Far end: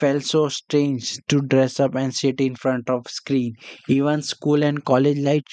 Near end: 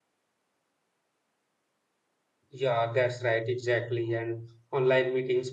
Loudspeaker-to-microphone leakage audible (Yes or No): No